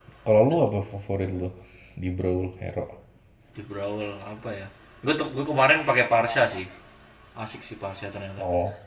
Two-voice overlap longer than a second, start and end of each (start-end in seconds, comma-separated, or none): none